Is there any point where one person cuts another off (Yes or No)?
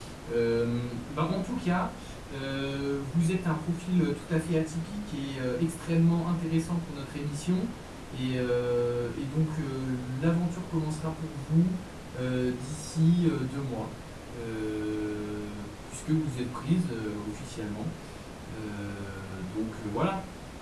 No